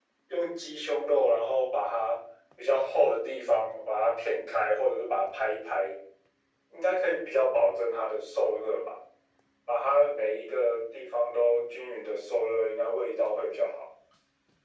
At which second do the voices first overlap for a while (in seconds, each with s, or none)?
none